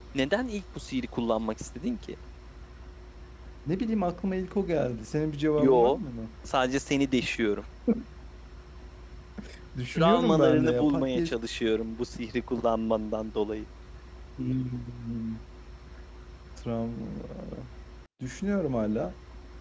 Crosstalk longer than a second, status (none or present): present